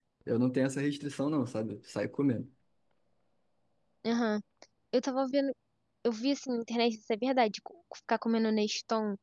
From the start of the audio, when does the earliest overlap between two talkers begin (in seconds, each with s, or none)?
none